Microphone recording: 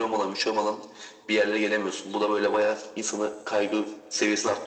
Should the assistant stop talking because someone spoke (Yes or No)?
No